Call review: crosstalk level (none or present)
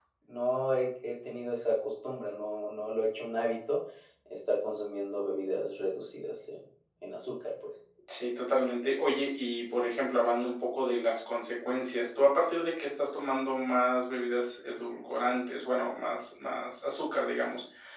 none